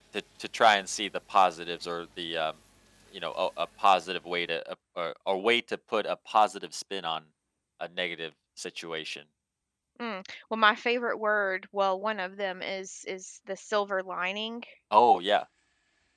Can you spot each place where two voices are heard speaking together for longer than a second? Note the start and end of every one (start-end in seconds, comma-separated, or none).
none